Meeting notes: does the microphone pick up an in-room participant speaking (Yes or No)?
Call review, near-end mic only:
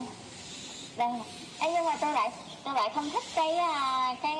No